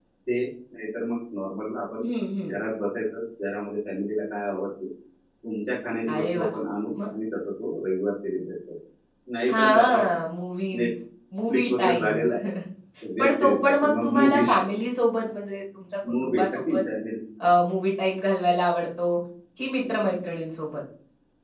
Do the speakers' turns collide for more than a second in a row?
Yes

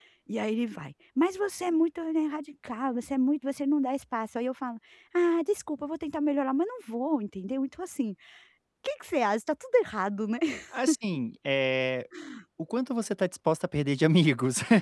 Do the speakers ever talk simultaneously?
No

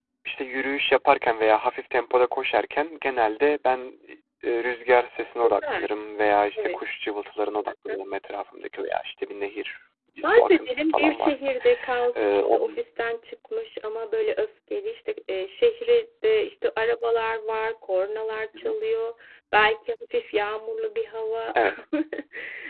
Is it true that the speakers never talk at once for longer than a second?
No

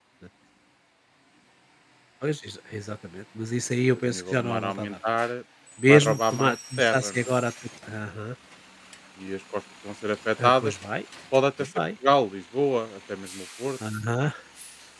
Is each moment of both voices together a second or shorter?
No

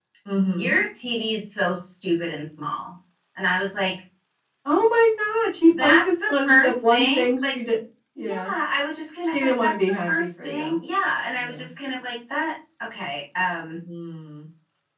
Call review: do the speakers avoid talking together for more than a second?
No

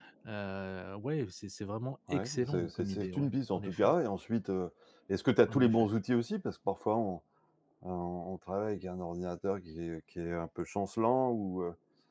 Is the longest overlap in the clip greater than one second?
Yes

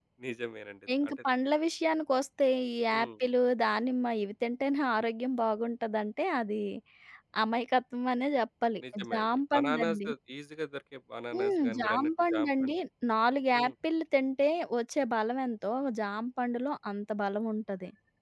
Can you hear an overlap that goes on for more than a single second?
Yes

